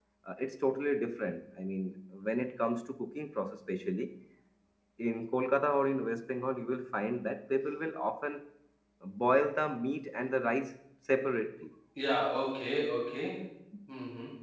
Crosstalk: none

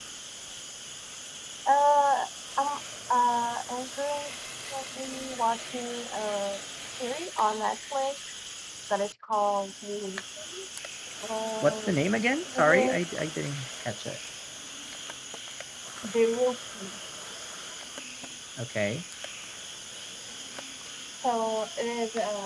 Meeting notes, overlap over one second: none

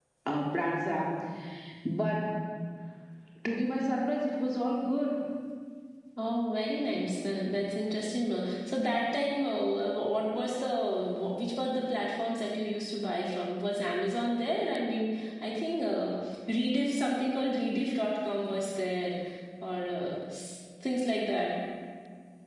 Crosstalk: none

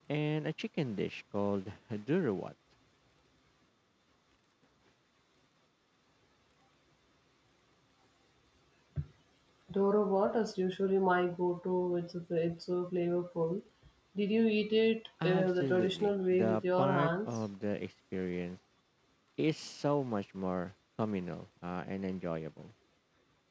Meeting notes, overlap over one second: present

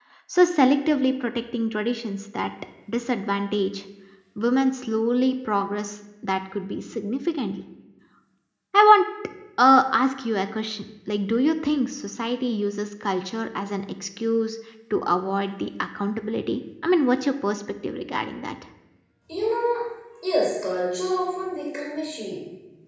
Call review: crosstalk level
none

